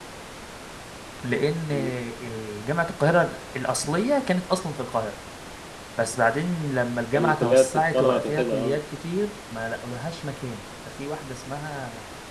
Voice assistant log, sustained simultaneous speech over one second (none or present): present